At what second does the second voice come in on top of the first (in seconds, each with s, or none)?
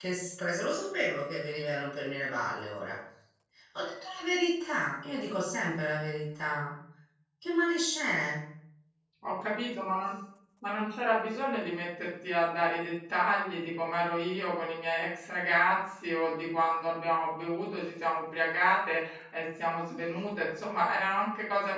none